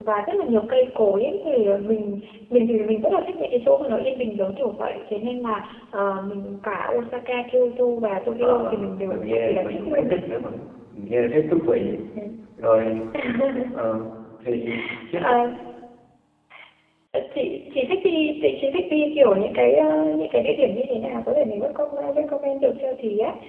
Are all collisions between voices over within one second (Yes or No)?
No